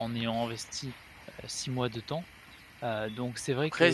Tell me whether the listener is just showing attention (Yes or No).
No